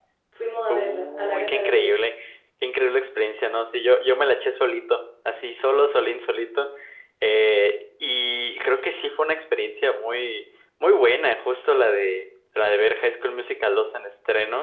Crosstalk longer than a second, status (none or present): present